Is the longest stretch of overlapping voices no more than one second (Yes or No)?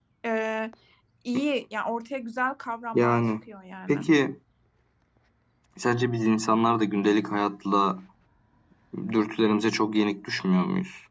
Yes